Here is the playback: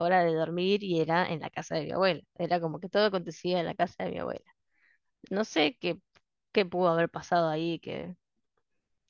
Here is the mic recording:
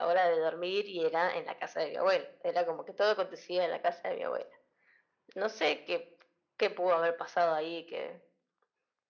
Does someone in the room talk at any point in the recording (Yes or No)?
No